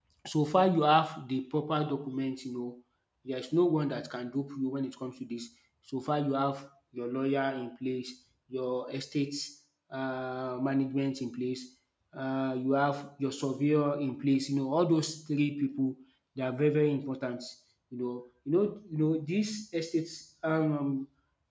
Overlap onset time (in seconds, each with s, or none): none